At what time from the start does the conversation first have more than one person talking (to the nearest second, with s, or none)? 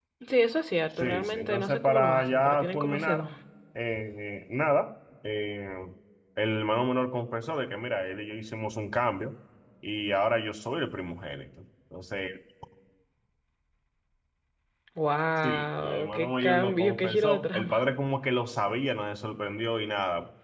1 s